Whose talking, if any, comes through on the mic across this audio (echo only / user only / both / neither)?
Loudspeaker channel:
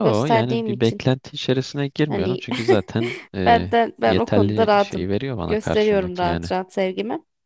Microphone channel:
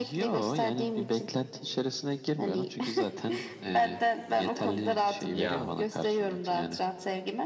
both